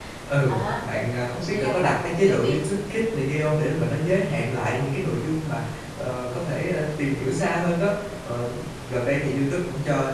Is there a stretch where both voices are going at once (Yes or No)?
Yes